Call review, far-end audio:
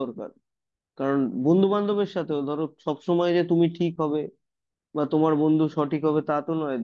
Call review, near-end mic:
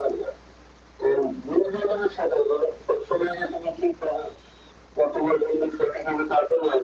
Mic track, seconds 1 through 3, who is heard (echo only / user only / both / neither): echo only